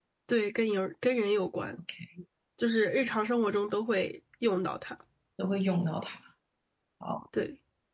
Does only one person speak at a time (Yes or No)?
Yes